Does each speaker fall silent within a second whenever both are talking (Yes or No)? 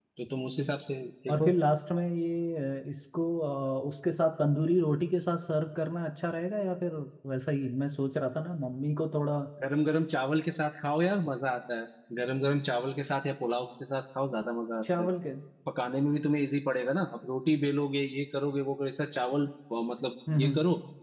Yes